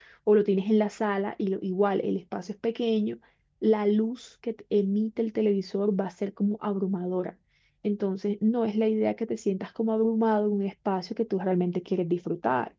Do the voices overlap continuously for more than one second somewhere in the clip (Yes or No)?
No